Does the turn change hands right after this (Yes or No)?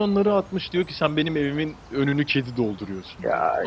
No